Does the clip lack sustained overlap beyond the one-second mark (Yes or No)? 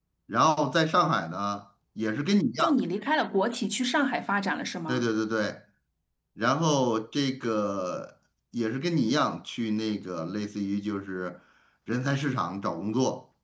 Yes